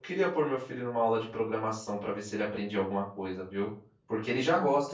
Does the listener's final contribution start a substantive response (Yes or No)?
No